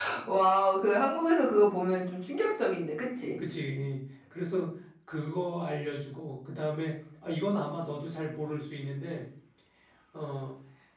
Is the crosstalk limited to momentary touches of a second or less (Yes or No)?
Yes